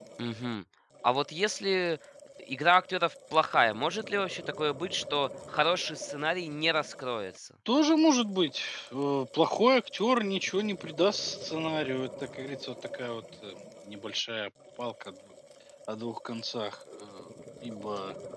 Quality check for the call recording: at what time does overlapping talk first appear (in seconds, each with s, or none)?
none